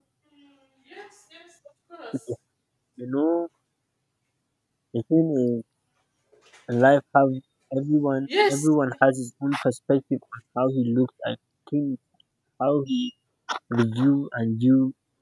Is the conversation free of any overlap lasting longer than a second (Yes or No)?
Yes